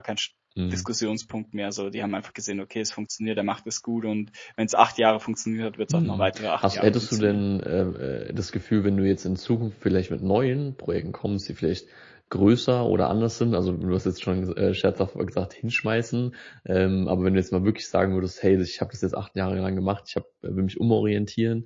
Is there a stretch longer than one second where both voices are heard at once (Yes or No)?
Yes